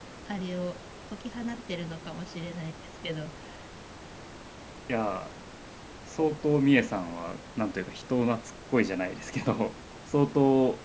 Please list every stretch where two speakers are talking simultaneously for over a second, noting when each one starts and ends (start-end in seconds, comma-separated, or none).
none